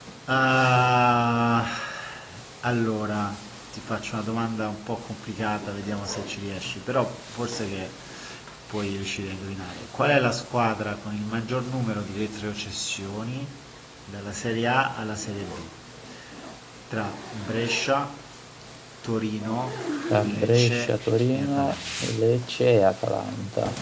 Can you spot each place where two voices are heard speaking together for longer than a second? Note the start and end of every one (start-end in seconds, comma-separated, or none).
20.2-22.1